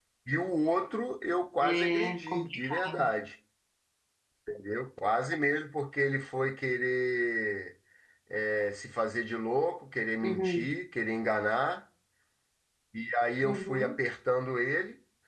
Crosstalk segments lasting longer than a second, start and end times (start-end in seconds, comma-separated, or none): 1.6-2.9